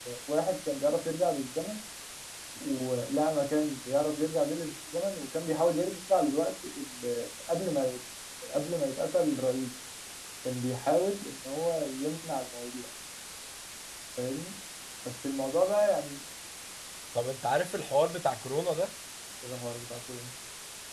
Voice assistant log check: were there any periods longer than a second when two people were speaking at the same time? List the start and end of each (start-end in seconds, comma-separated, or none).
none